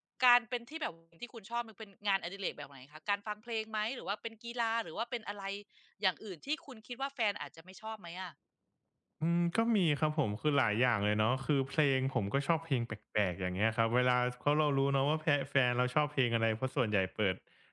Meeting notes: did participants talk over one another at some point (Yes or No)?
No